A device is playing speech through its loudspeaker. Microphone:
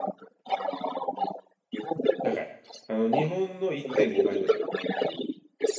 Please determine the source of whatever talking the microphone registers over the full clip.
both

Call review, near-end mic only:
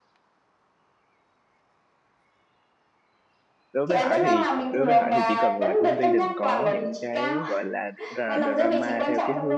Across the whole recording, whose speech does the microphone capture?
both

